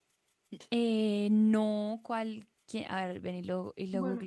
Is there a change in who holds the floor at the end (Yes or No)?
Yes